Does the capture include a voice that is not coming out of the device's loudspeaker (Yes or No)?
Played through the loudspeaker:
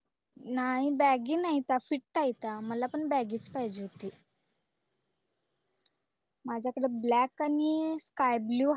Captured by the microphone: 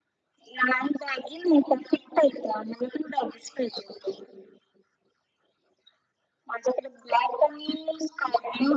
No